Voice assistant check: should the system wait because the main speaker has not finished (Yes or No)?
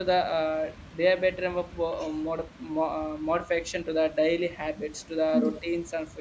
Yes